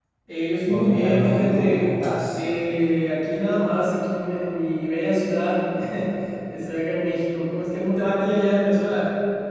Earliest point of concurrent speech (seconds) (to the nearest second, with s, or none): 1 s